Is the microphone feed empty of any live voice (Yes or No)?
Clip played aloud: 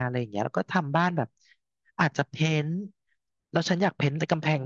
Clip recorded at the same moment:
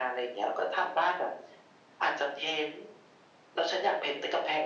Yes